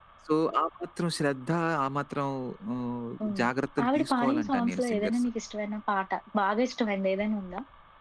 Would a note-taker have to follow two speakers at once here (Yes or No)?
Yes